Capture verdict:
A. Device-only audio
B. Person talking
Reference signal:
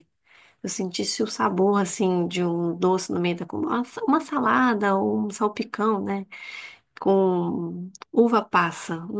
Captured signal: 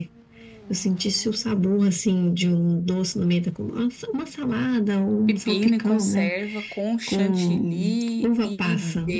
B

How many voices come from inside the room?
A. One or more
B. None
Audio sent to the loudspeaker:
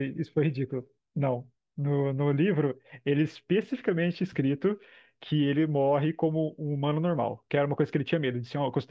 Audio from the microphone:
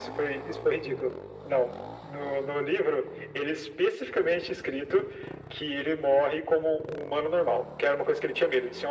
B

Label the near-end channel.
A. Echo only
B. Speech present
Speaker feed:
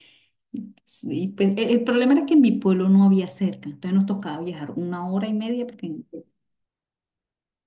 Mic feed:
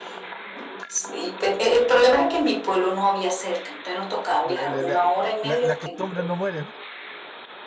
B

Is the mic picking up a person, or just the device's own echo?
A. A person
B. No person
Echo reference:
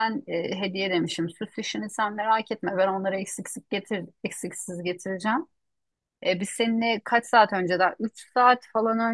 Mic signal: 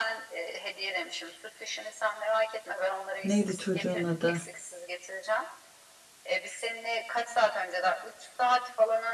A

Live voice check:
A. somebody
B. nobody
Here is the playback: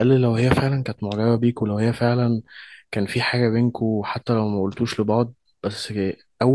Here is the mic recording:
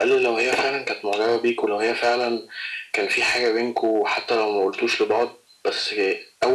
B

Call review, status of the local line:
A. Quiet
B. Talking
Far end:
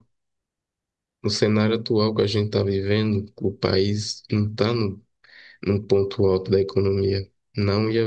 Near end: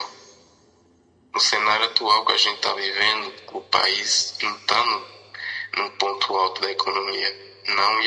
A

